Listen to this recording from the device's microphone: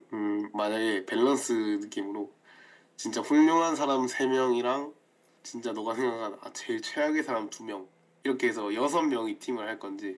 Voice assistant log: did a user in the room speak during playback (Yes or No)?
No